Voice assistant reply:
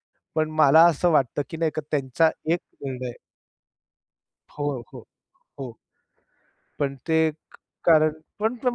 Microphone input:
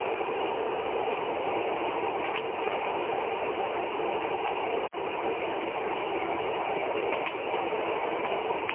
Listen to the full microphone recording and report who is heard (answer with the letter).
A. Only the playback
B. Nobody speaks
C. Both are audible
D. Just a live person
B